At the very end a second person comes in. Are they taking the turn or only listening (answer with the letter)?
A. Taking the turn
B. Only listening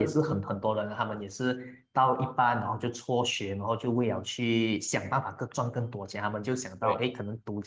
B